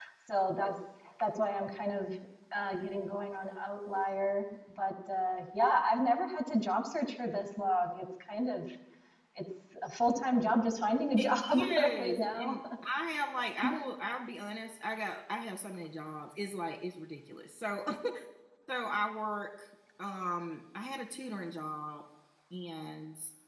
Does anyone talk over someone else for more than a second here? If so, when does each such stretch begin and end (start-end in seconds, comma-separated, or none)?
11.2-12.6